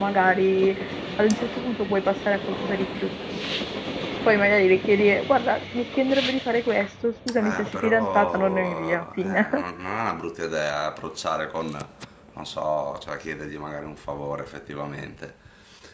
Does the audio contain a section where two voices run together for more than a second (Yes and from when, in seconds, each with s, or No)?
Yes, from 7.3 s